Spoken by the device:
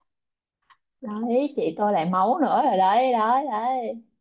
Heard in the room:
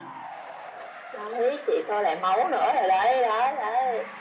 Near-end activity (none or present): none